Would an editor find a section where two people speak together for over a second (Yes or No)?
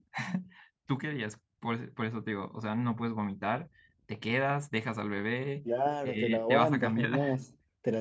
Yes